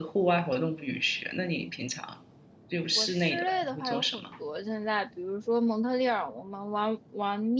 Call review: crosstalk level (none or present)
present